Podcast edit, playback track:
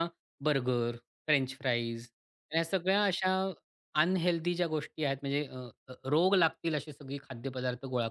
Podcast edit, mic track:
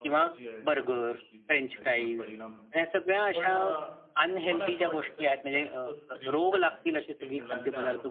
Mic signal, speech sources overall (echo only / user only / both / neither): both